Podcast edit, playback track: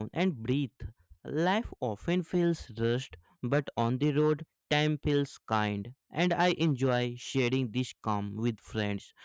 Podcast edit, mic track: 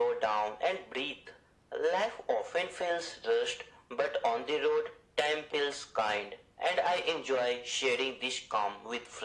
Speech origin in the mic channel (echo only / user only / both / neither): echo only